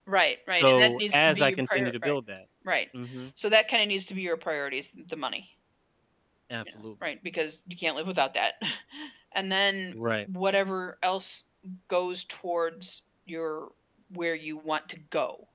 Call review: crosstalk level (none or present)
present